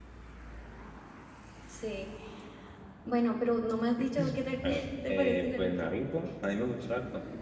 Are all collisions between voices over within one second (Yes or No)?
No